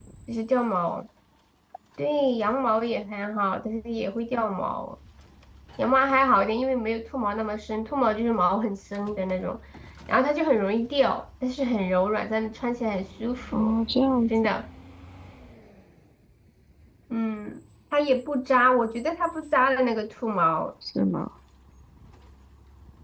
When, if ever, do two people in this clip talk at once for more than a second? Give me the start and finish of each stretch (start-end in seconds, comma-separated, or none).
none